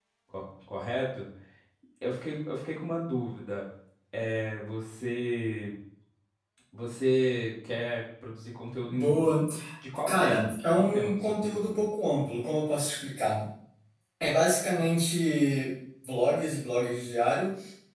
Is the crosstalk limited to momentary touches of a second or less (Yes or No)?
No